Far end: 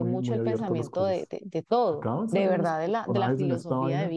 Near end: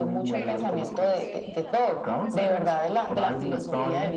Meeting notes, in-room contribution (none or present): present